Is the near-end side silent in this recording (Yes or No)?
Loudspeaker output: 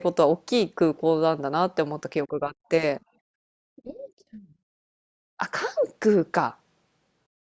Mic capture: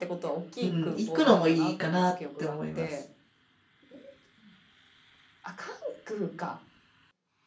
No